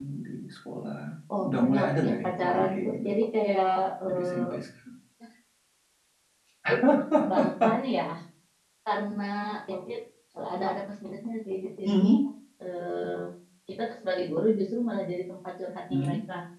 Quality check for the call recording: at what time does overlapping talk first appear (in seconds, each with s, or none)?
1.4 s